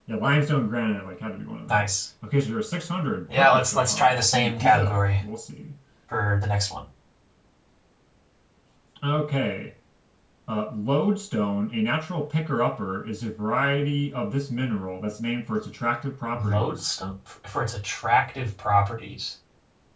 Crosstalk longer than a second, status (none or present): present